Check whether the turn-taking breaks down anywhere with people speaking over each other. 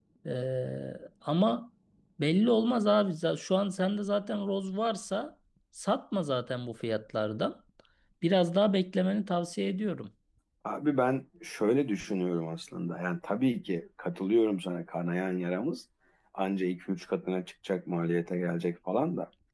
No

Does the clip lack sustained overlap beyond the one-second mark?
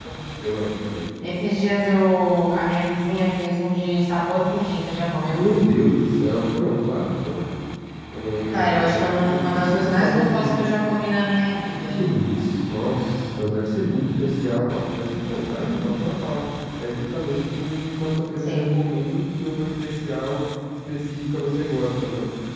No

